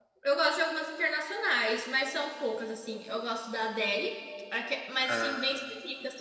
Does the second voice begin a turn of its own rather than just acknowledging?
No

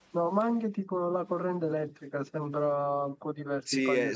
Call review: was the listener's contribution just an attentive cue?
No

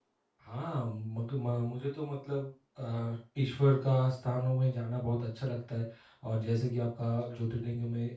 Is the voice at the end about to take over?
No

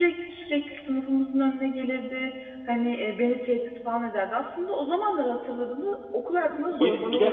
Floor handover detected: Yes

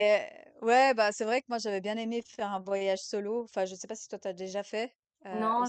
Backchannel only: No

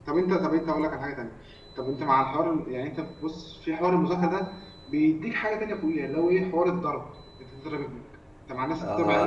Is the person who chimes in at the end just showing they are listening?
No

